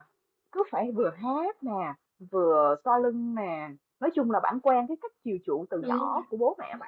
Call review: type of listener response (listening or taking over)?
listening